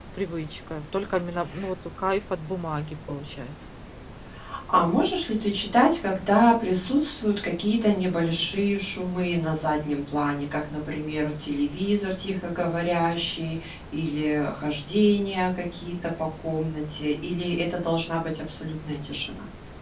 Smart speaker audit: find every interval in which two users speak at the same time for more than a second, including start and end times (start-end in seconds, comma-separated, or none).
none